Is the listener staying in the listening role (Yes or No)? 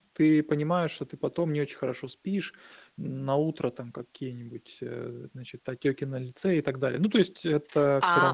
No